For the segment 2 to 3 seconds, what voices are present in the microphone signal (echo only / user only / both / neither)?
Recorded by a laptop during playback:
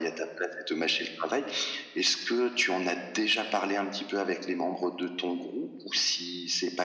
echo only